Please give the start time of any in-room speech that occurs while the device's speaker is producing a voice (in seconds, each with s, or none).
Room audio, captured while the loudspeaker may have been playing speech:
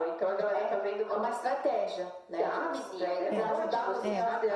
3.3 s